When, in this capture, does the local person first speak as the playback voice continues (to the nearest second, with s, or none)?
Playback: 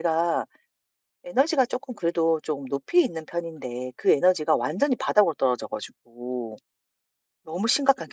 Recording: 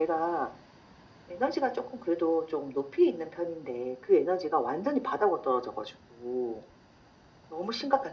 none